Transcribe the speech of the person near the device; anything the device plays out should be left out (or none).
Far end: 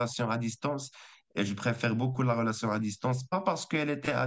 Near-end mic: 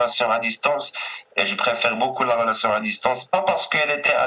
none